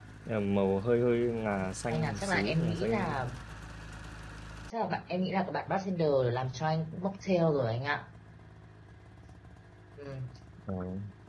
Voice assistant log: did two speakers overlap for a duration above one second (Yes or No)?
Yes